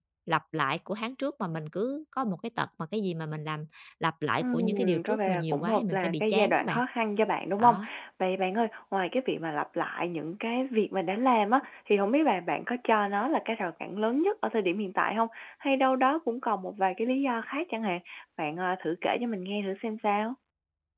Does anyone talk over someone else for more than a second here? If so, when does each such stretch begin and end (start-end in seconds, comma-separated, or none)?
4.4-6.8